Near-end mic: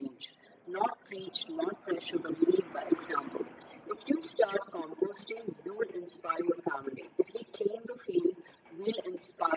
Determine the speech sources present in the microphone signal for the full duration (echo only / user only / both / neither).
echo only